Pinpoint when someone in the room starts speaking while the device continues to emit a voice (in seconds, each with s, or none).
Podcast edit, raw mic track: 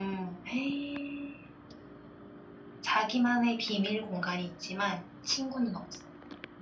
none